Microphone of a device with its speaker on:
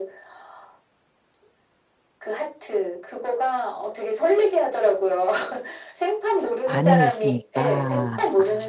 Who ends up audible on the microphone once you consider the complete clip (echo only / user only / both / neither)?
both